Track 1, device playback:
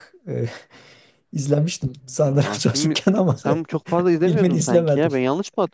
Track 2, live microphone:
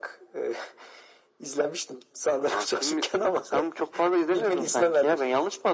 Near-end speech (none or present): none